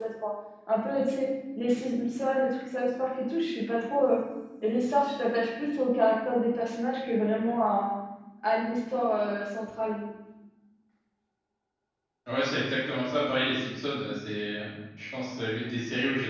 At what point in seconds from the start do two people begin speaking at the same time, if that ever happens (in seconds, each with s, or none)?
none